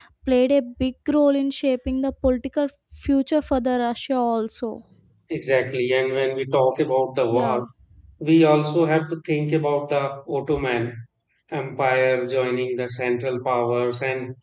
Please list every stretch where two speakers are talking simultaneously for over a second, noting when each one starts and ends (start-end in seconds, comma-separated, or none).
none